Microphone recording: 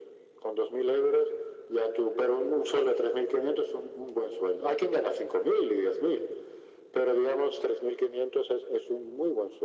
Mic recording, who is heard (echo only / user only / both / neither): echo only